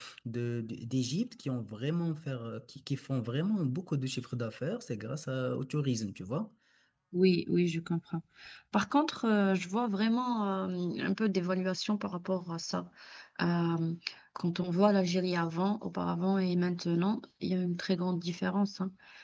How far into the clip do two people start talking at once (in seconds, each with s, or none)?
none